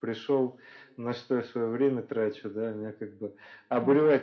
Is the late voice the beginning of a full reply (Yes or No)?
No